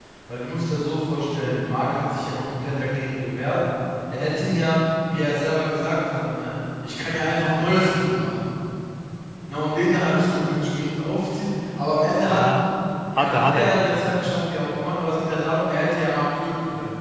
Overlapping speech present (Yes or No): Yes